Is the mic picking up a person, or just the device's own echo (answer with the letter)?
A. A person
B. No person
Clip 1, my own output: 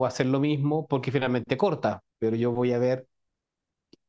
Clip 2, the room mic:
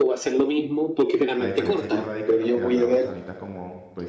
A